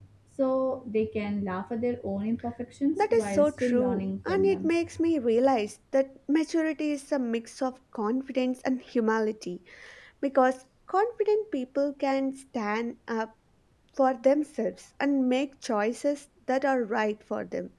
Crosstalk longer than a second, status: present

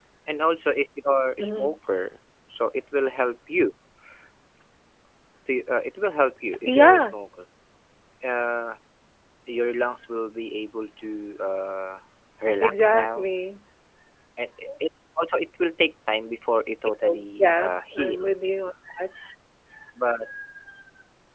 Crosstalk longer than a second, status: present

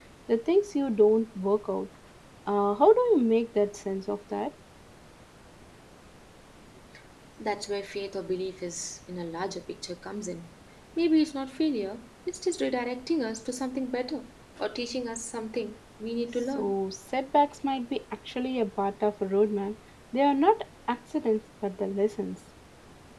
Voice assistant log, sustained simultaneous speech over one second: none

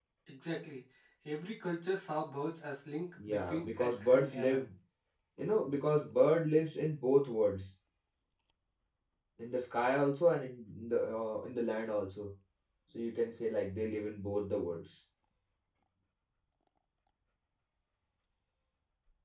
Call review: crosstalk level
present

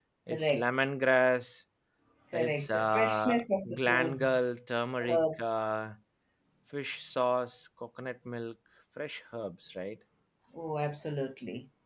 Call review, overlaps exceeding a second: present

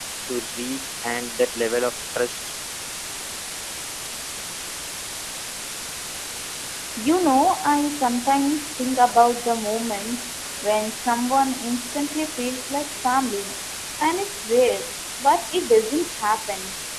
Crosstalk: none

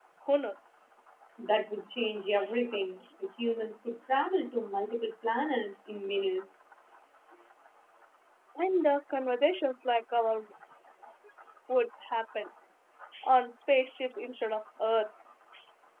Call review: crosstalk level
none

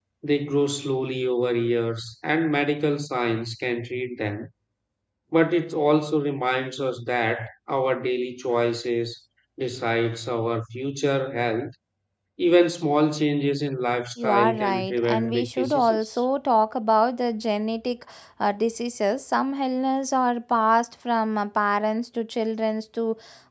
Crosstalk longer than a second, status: present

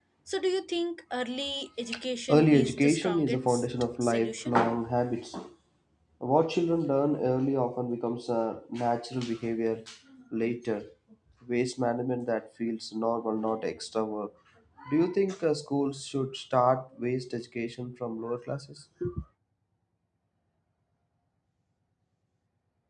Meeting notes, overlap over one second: present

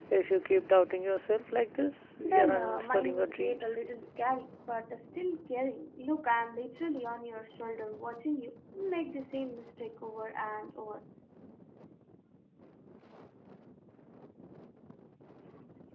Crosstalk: present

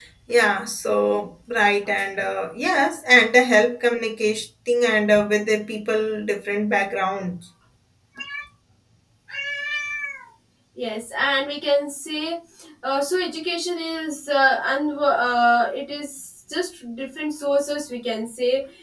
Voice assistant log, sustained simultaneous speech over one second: none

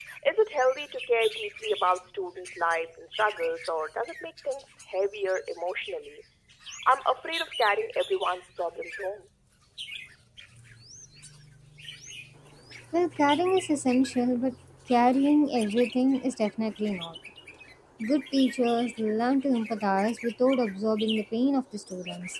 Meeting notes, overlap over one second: none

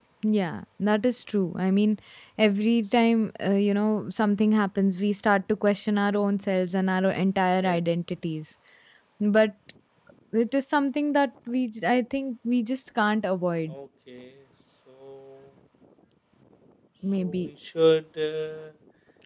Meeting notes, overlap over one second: none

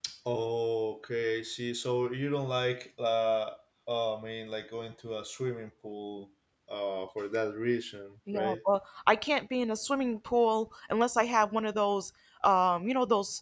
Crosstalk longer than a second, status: none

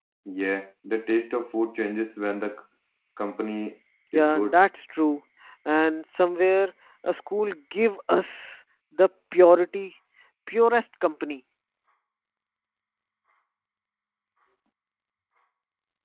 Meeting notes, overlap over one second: none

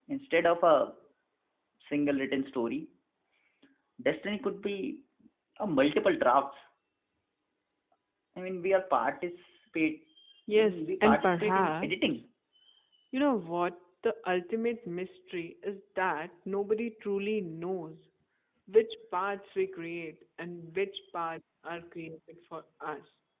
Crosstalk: present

